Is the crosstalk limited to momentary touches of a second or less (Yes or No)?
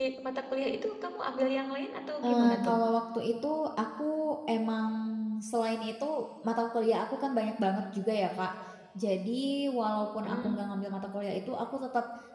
Yes